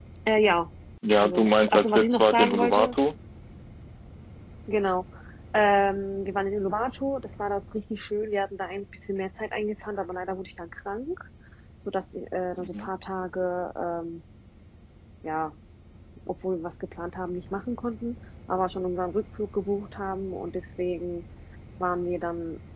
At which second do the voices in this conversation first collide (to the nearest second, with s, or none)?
1 s